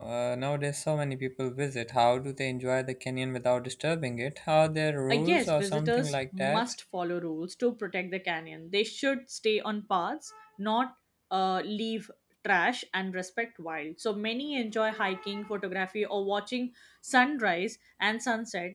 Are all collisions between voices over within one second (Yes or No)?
No